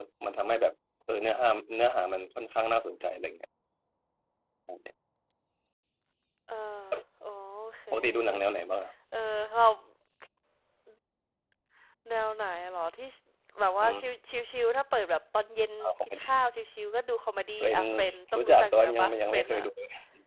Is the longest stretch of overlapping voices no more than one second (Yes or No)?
No